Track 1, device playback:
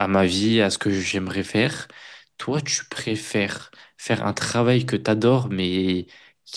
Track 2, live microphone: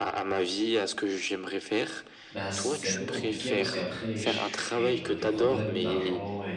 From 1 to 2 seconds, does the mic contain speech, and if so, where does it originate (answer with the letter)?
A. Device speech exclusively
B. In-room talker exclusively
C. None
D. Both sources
A